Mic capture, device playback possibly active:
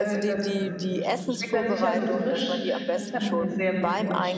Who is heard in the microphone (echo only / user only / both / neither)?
both